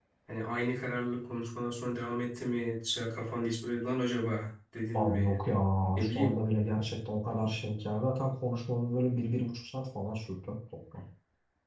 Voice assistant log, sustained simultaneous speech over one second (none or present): none